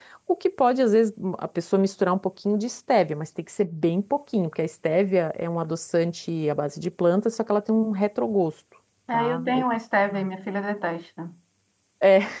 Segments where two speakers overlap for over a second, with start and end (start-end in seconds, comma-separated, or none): none